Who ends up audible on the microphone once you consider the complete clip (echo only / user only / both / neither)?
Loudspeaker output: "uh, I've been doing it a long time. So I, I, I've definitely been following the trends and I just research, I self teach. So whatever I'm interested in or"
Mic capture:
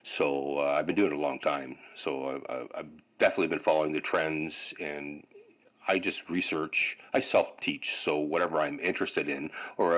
echo only